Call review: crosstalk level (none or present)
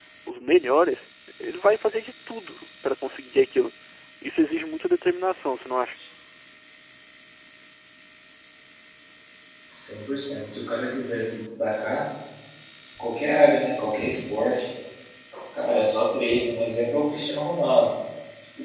none